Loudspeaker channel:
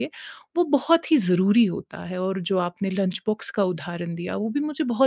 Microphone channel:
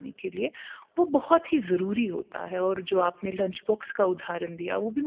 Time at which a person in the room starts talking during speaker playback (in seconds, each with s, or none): none